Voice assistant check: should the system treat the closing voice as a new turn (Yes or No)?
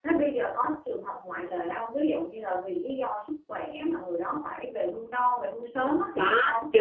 Yes